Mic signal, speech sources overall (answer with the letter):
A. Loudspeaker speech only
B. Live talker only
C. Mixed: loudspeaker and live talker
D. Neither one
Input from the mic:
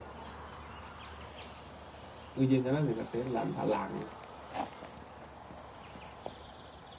B